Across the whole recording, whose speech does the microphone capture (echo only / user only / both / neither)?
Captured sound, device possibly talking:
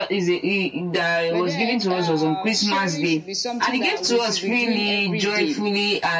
both